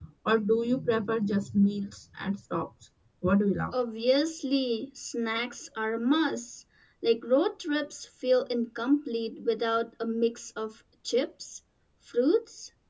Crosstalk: none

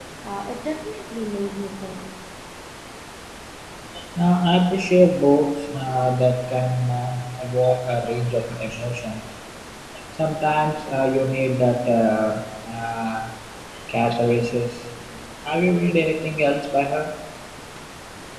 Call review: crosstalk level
none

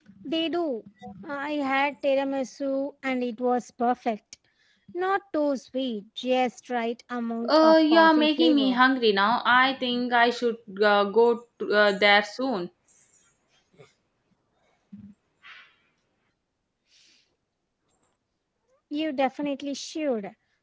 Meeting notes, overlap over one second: present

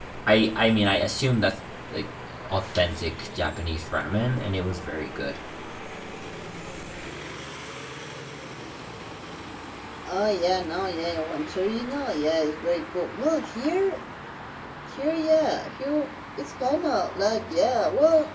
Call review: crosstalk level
none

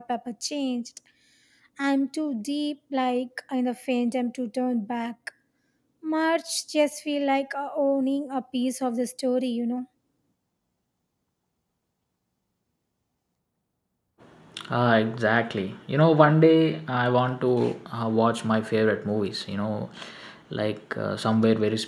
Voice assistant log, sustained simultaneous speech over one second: none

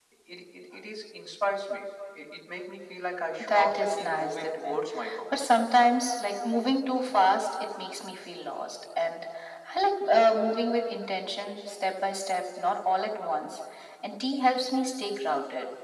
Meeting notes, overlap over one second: present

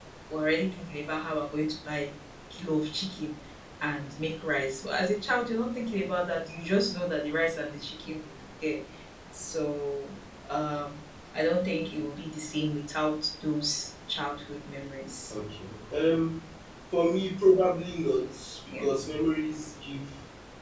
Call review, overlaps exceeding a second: none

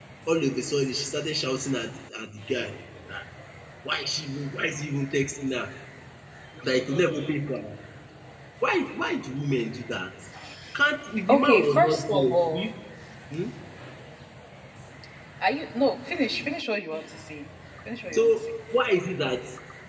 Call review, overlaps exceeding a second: present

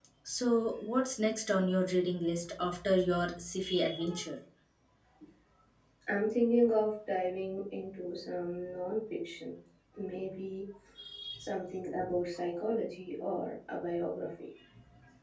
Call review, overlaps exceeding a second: none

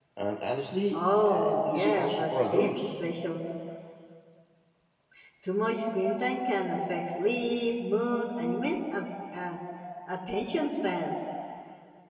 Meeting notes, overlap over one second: present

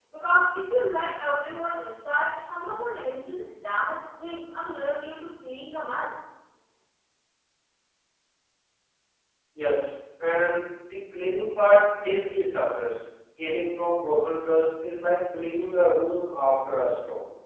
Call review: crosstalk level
none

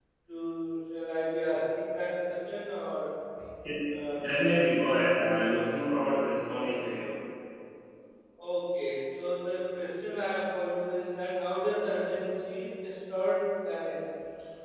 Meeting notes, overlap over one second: none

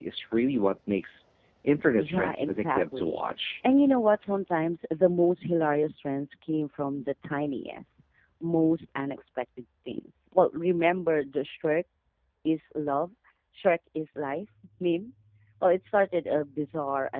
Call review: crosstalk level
present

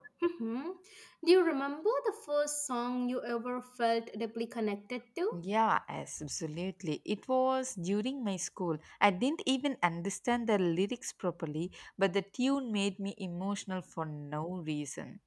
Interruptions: none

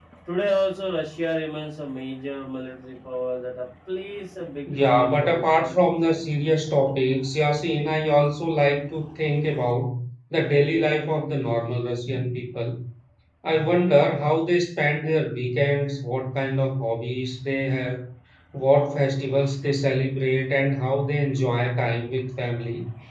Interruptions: present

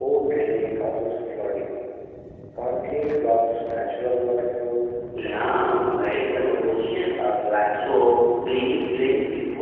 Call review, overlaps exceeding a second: present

